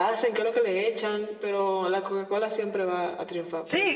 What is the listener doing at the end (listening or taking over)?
taking over